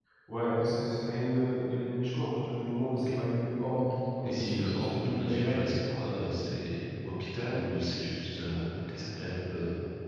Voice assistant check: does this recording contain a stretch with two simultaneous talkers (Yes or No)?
Yes